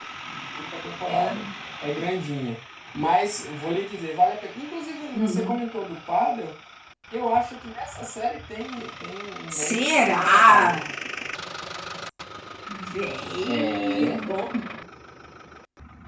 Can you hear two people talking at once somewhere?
Yes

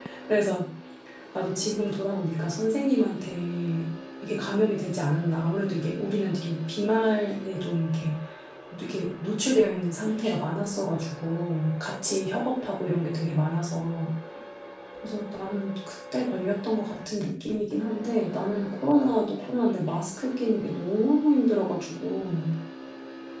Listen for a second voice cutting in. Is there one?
No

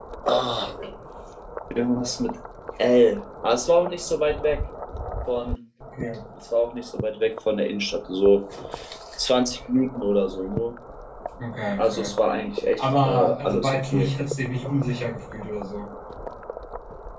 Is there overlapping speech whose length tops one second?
Yes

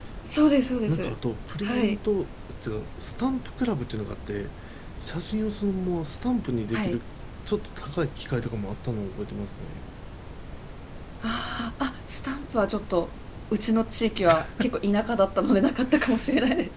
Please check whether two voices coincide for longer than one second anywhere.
No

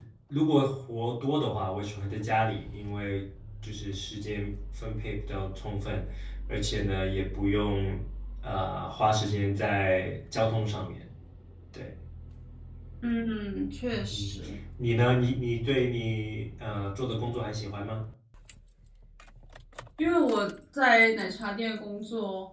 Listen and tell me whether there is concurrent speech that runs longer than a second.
No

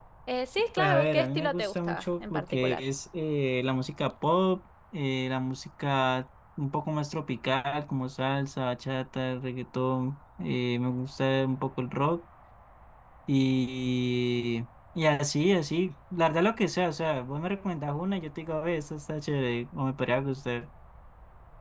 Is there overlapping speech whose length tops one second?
Yes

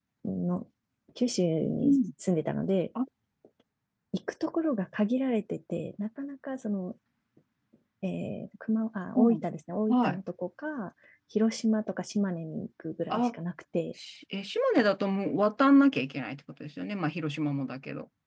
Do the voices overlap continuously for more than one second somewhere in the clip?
No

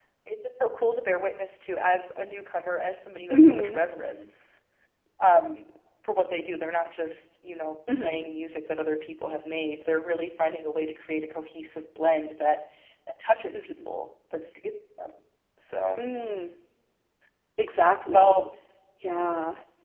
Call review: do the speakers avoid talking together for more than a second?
Yes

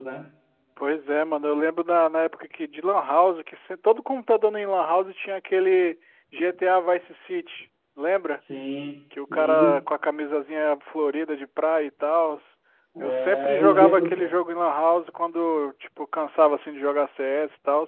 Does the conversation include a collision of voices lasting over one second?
Yes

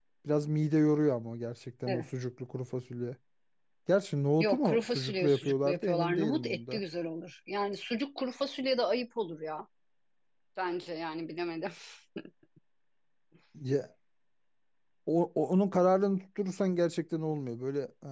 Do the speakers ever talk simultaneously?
Yes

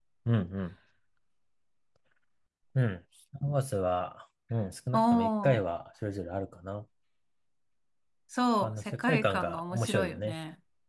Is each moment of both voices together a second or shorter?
No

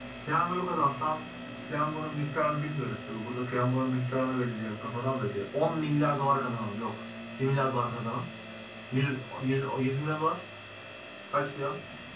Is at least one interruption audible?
No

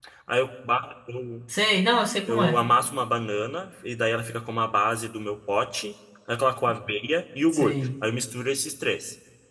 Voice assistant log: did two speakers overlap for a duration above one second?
No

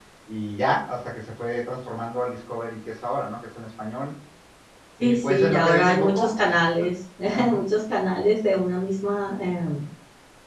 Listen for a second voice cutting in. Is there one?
Yes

